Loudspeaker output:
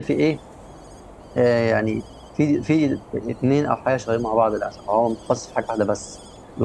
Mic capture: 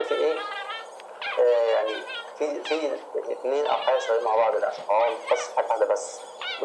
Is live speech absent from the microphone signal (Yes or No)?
Yes